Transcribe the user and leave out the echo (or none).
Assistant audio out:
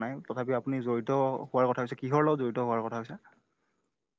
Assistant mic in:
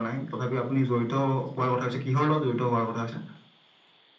none